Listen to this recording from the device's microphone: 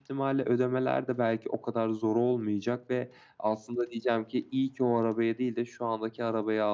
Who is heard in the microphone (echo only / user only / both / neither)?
echo only